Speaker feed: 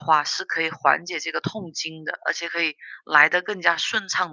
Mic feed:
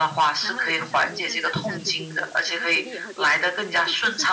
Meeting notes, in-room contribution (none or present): present